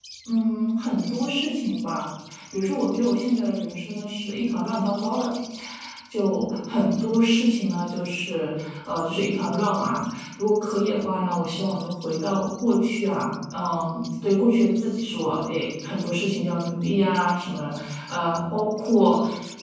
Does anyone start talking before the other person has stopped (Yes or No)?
No